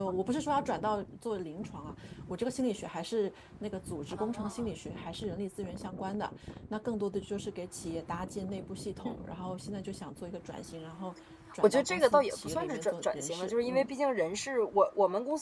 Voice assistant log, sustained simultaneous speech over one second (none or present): present